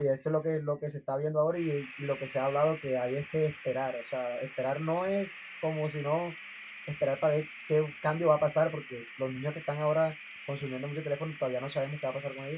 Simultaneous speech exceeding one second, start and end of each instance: none

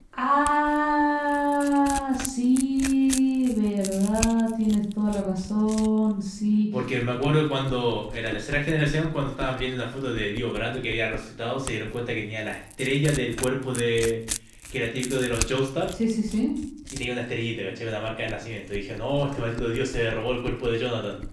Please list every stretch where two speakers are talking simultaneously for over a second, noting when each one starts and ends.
none

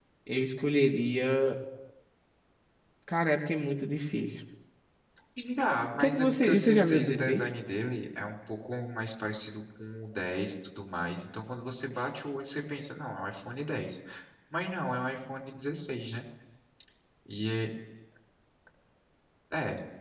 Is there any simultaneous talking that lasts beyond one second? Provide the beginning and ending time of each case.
6.0-7.5

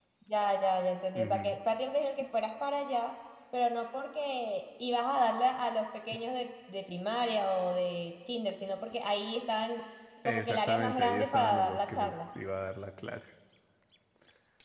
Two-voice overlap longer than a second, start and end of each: 10.2-12.2

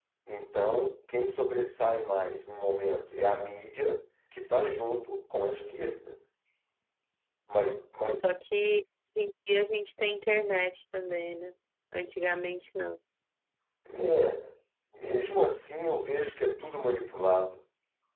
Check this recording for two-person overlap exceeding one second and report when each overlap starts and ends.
none

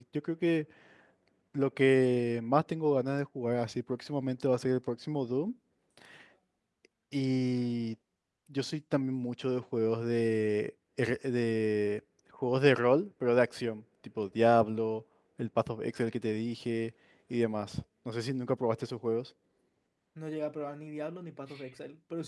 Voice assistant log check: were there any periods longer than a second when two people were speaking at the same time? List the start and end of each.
none

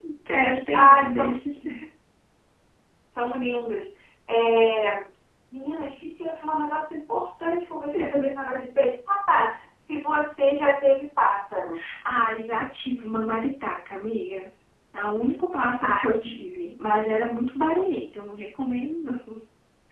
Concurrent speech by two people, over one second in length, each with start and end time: none

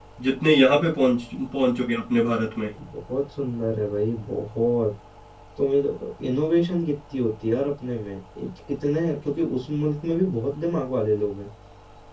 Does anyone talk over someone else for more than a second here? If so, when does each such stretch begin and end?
none

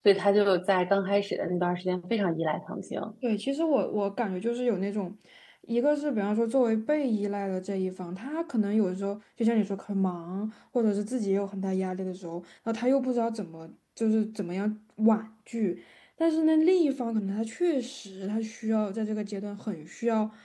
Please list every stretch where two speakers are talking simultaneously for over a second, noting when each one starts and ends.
none

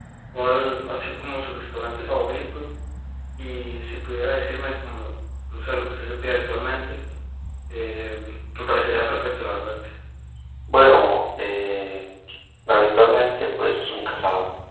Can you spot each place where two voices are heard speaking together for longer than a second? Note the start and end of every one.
none

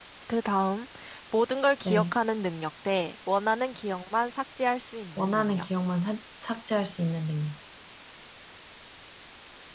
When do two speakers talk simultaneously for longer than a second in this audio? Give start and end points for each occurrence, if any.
none

